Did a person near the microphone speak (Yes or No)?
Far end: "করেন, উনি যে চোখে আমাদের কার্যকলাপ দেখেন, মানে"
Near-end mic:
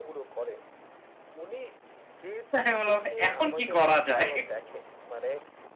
Yes